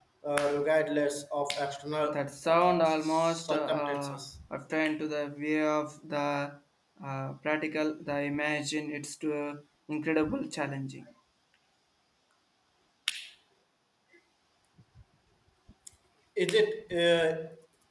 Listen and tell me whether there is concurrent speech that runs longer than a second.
Yes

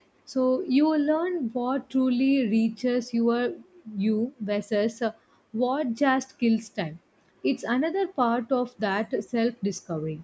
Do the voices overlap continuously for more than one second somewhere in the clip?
No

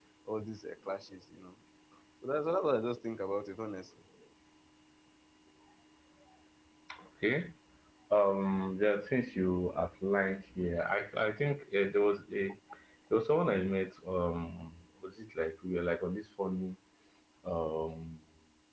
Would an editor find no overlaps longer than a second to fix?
Yes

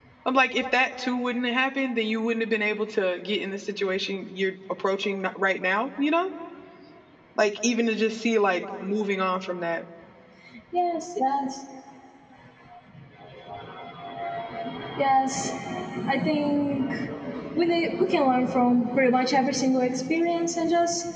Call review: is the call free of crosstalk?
Yes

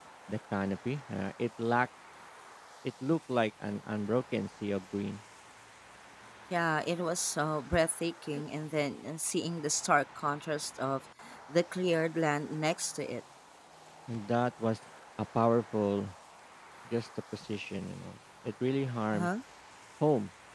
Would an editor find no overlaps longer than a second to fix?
Yes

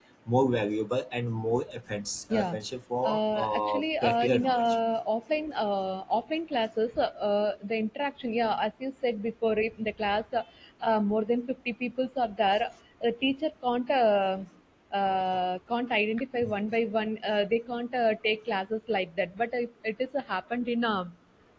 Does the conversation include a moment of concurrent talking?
Yes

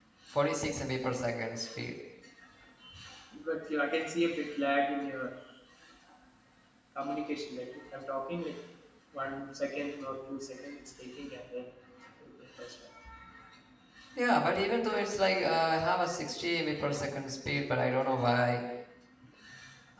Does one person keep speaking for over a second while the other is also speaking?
No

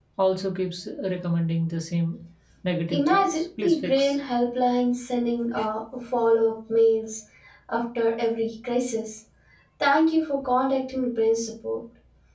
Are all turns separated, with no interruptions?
No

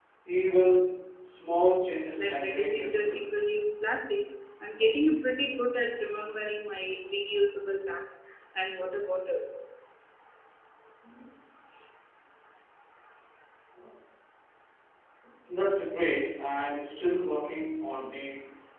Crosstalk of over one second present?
Yes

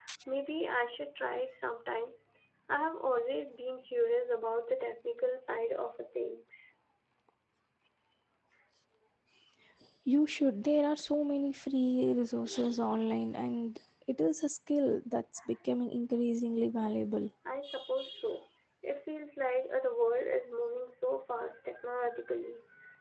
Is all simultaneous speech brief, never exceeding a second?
Yes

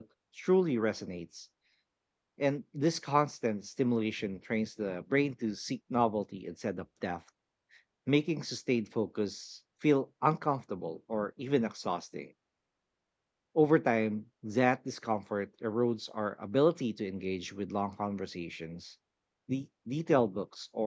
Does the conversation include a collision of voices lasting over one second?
No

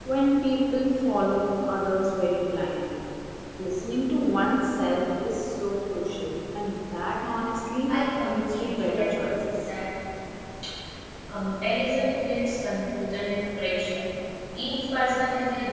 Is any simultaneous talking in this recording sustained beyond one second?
Yes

